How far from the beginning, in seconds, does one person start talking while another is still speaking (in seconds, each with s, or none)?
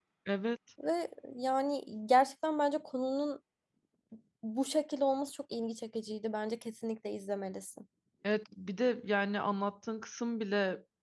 none